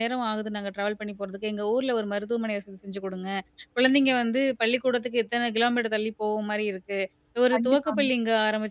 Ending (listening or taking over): listening